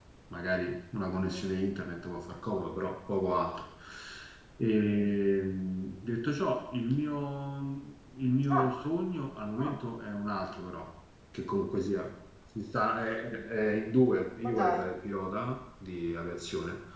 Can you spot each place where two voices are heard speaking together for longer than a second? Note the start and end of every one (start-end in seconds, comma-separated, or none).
none